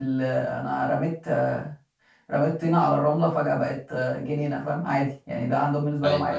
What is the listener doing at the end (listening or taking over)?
taking over